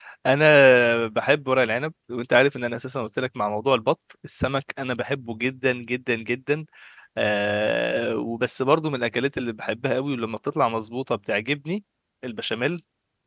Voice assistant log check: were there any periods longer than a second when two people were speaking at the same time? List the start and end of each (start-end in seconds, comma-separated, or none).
none